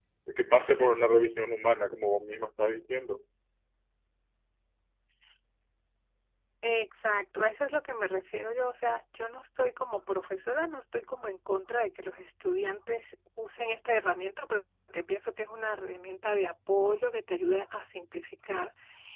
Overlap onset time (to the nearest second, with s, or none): none